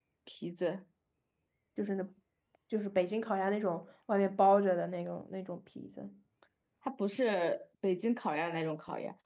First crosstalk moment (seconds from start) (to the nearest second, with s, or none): none